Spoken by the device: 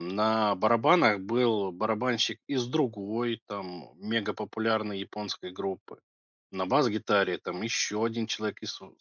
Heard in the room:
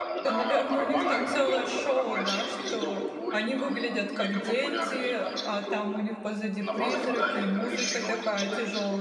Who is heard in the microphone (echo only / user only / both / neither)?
both